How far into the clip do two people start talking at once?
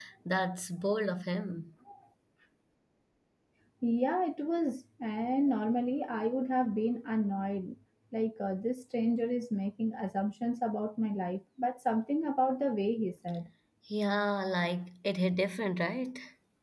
none

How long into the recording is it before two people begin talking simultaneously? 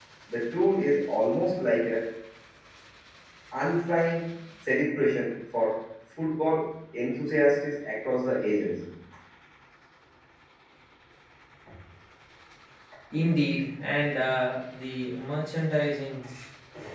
none

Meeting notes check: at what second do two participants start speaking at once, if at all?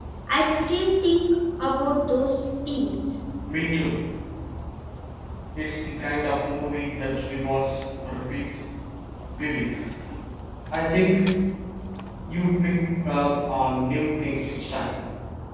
none

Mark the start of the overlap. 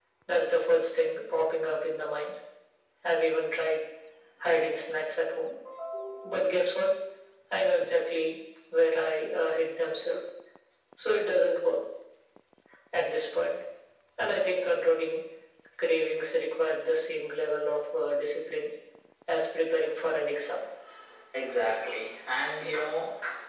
none

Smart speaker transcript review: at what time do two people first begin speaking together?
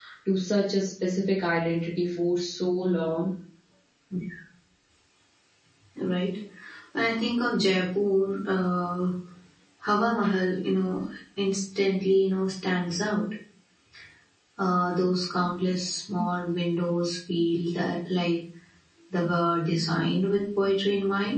none

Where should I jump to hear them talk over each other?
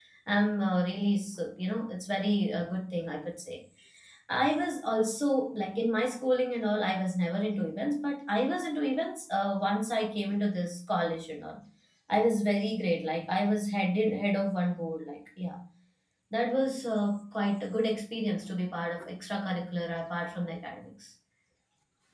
none

